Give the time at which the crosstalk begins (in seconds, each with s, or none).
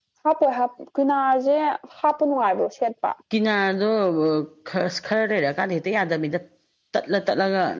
none